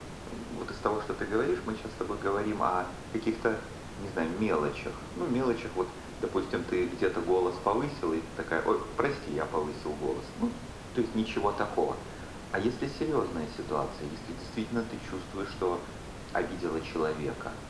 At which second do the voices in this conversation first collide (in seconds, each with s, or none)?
none